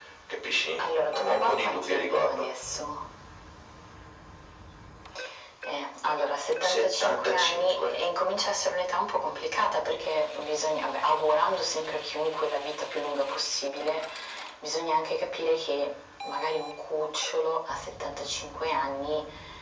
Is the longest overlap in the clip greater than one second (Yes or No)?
Yes